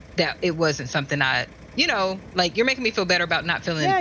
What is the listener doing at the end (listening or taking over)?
taking over